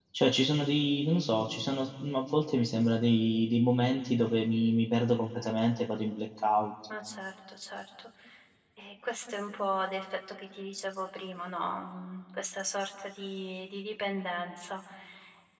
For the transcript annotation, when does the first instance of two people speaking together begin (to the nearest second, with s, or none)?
none